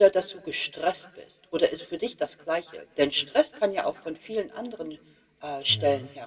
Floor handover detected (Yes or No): Yes